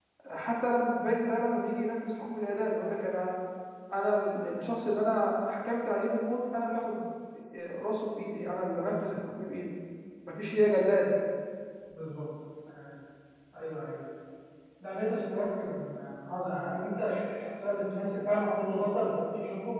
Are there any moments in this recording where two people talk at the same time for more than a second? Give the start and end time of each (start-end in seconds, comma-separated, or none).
none